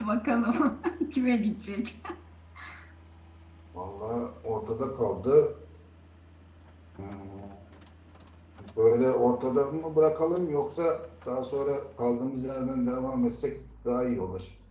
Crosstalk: none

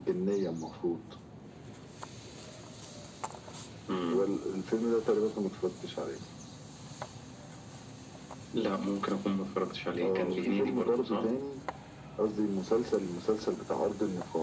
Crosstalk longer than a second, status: present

